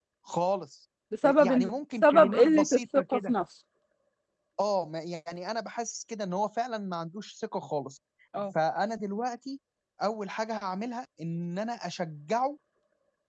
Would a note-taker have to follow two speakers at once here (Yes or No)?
Yes